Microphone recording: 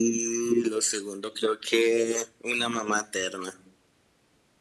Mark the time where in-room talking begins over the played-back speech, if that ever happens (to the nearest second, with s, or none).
none